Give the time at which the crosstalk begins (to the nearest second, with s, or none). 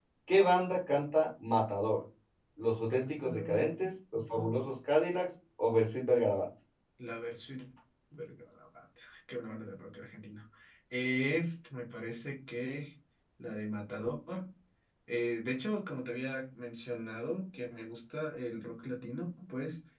3 s